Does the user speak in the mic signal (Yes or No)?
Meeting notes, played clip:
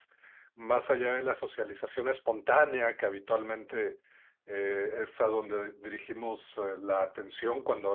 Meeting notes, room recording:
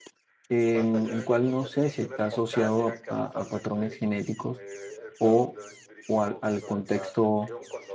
Yes